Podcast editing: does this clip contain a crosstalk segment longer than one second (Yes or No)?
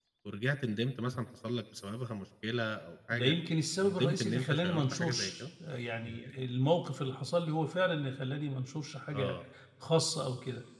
Yes